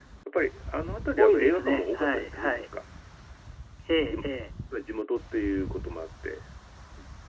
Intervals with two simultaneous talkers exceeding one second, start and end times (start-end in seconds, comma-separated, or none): 1.2-2.6